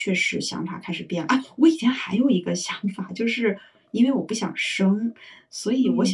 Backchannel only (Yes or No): Yes